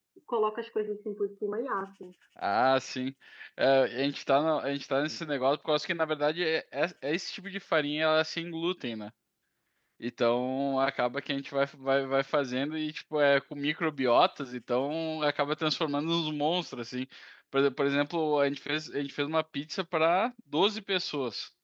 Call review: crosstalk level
none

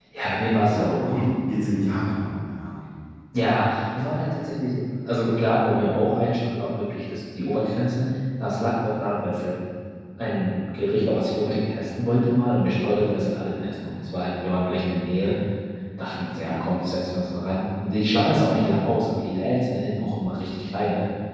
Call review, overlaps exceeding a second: none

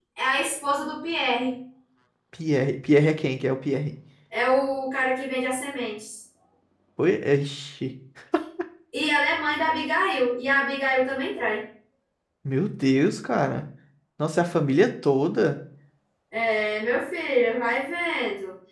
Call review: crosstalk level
none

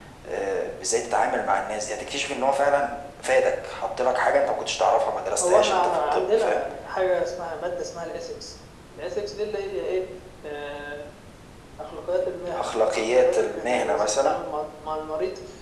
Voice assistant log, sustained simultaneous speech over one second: present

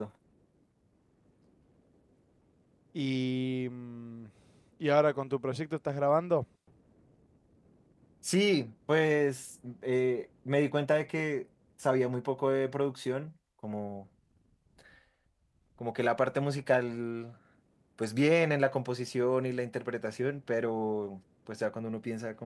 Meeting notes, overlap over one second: none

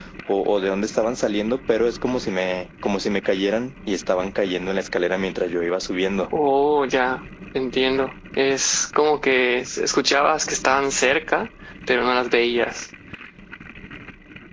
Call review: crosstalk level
none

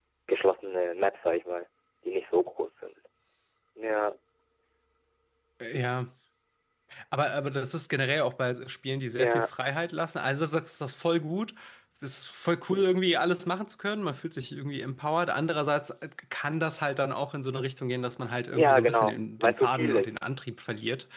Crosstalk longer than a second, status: present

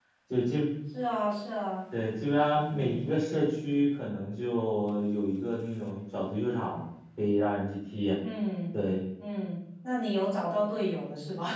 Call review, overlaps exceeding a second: none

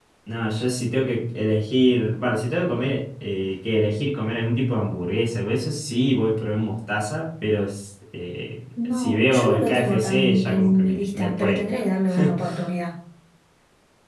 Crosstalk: present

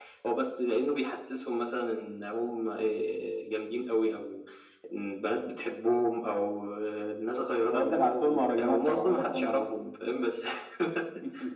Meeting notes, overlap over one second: present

